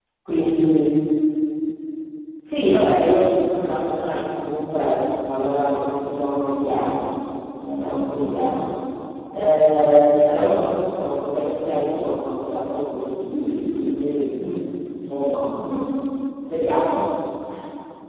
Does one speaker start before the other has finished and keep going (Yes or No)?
No